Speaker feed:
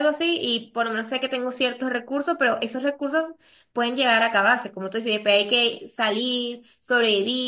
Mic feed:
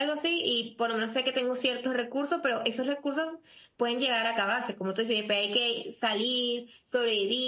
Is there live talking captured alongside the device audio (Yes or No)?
No